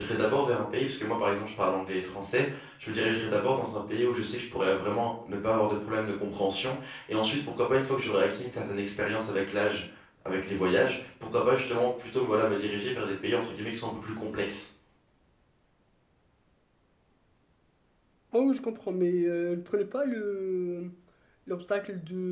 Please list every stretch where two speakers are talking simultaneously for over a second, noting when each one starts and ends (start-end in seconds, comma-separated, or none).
none